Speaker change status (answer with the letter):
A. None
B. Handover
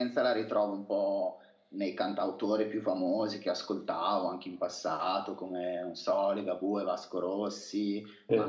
A